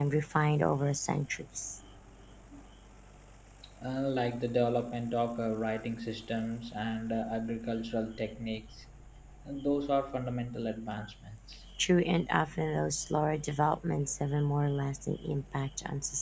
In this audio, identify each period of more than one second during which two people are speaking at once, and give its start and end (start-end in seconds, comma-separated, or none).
none